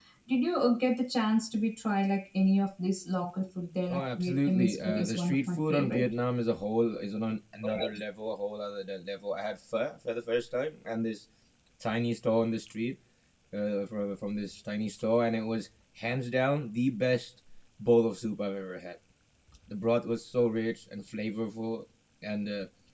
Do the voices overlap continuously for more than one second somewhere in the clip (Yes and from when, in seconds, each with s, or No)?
Yes, from 3.9 s